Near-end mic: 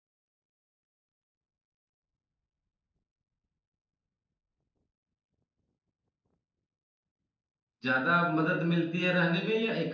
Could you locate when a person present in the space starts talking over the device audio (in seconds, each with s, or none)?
7.8 s